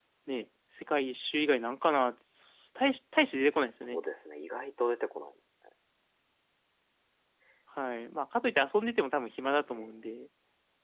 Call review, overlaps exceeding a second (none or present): none